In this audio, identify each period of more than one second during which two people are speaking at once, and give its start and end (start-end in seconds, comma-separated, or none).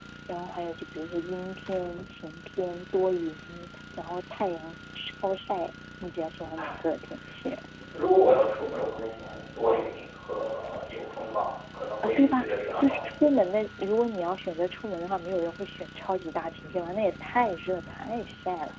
12.0-13.3